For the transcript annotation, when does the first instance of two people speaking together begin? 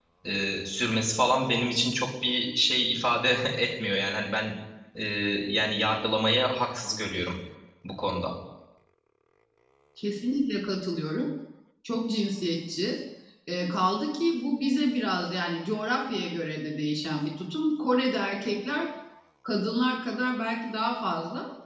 none

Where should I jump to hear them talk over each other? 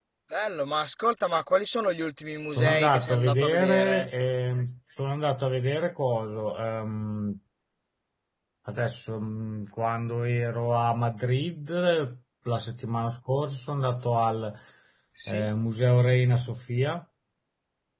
2.5 s

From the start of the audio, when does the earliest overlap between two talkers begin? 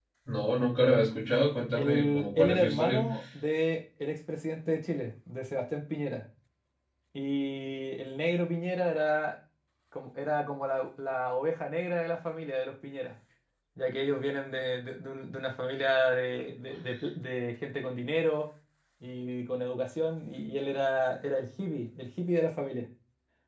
1.8 s

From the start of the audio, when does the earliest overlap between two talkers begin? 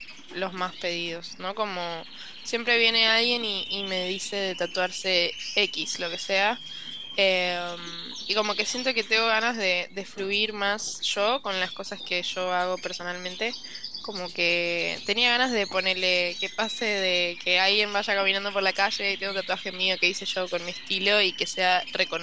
none

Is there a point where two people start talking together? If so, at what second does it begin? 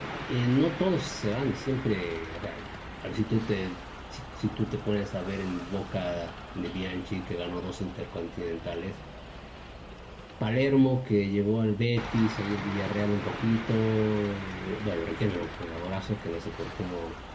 none

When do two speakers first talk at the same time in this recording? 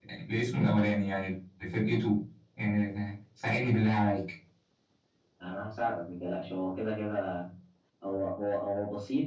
none

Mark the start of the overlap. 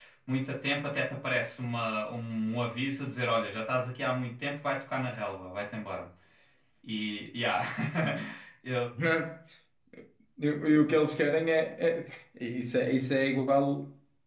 none

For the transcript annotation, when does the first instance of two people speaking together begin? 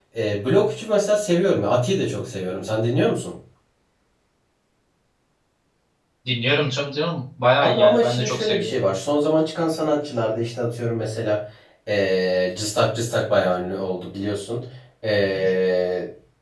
7.6 s

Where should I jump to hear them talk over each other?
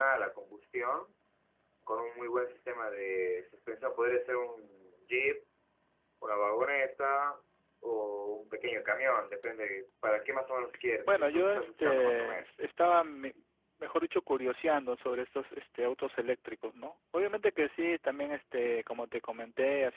11.1 s

